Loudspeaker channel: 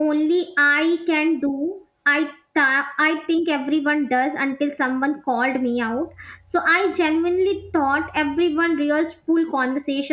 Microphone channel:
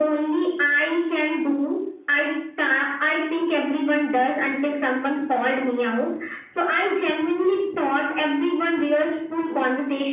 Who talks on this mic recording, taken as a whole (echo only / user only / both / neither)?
echo only